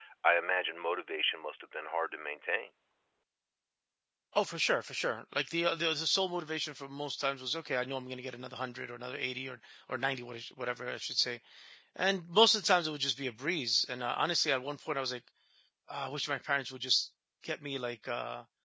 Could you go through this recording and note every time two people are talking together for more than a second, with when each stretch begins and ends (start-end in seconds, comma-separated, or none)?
none